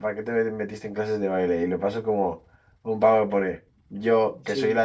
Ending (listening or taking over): listening